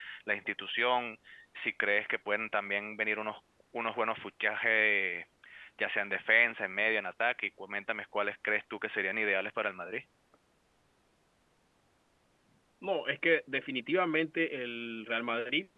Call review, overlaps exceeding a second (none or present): none